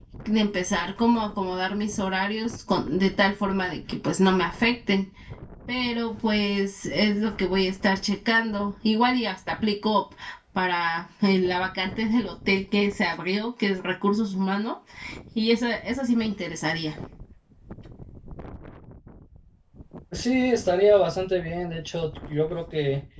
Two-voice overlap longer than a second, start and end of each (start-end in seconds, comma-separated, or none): none